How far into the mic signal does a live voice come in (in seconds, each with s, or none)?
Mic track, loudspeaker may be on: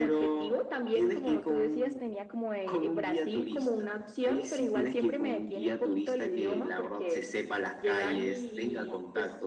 none